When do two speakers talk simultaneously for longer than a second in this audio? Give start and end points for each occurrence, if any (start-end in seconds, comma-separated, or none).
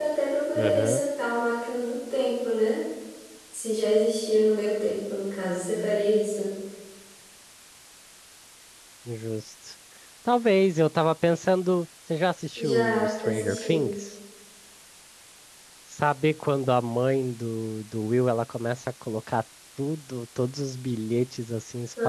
12.6-13.9